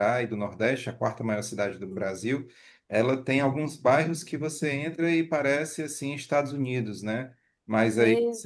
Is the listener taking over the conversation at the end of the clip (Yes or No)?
No